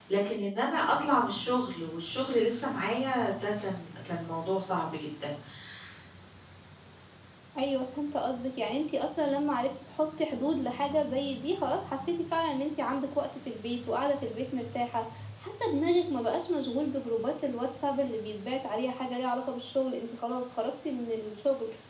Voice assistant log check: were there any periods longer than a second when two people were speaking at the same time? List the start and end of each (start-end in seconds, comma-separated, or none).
none